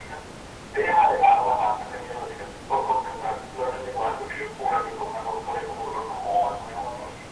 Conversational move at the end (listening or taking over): taking over